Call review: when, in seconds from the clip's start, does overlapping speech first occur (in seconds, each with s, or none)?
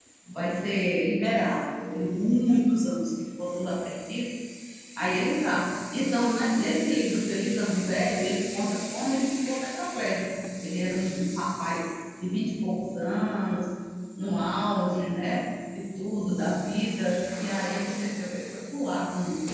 none